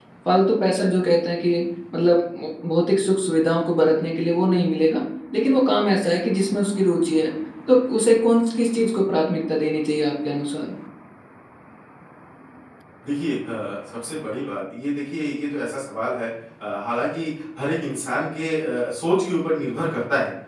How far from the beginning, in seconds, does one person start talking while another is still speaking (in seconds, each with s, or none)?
none